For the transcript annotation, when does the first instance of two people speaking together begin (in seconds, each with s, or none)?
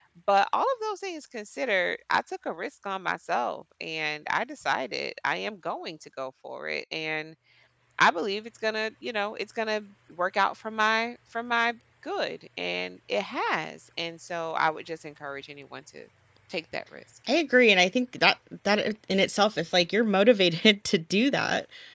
none